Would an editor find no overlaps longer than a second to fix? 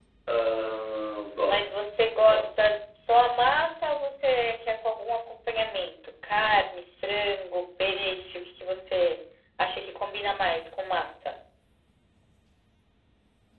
Yes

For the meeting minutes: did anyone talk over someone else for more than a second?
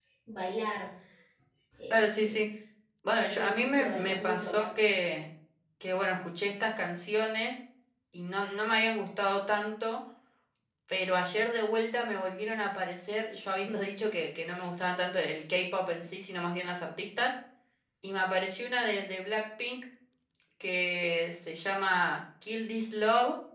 Yes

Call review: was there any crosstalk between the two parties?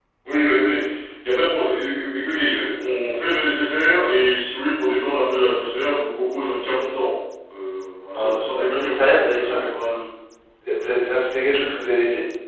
Yes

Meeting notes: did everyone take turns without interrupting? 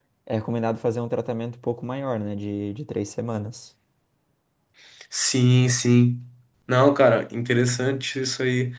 Yes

